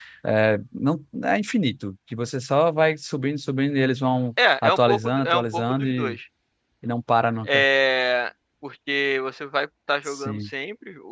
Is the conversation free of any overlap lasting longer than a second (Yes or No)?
No